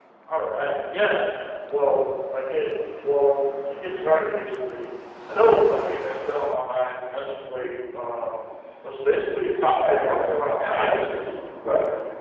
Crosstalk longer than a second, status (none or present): present